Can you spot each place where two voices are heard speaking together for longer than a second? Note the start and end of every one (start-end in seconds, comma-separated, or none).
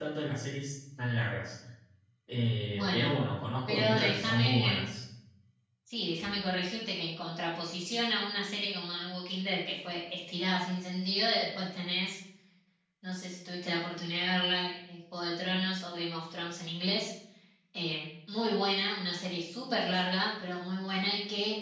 3.7-5.0